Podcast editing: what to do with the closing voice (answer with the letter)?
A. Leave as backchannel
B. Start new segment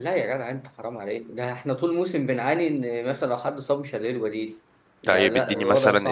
B